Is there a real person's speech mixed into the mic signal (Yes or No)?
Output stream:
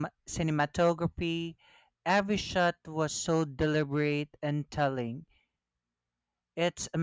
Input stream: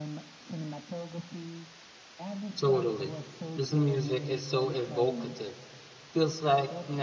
Yes